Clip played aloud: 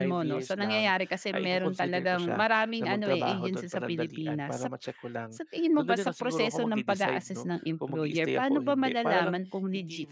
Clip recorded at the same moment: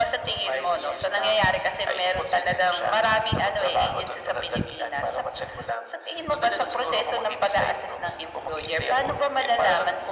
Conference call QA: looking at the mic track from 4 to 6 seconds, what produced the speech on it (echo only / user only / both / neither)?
echo only